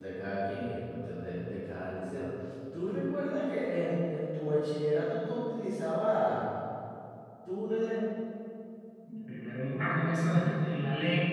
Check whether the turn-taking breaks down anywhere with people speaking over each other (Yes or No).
No